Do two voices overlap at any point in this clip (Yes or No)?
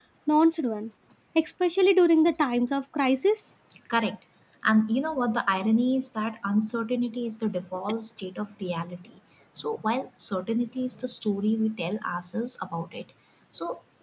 No